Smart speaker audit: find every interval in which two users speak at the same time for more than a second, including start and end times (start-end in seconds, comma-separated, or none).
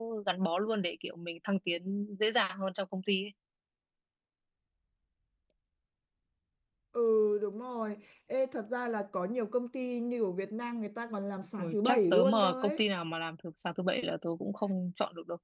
11.6-12.8